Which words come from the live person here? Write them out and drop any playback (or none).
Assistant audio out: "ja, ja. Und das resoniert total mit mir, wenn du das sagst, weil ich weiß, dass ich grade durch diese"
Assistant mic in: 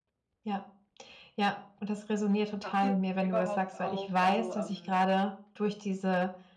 Habt ihr überhaupt auch also, ähm